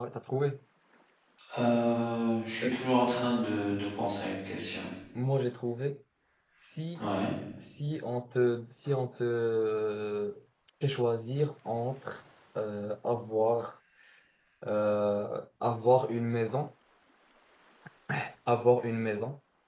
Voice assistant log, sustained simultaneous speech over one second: none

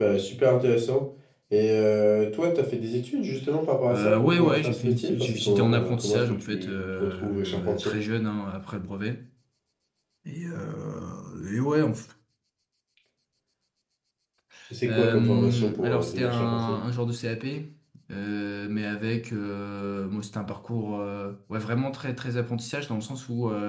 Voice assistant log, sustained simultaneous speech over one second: present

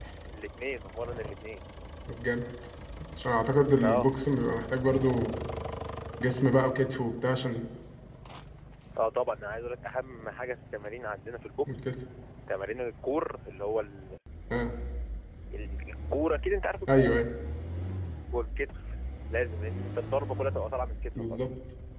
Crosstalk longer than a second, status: none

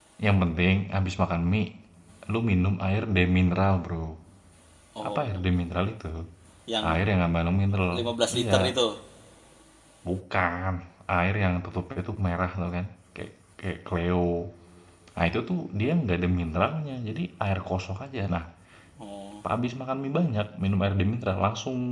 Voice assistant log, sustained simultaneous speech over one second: none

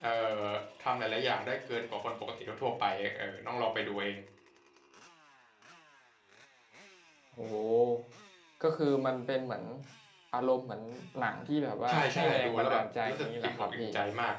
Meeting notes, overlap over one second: present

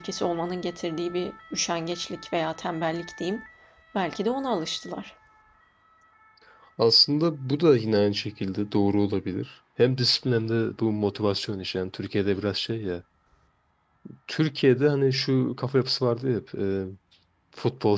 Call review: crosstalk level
none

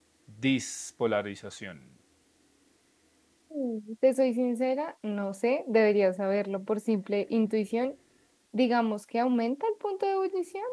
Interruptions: none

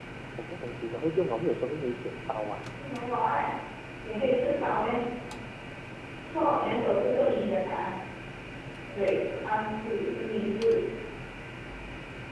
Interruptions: none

